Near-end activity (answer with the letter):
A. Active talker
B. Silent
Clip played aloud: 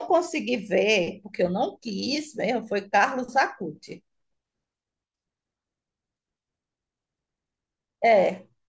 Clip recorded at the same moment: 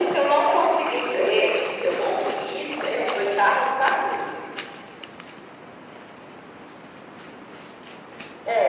B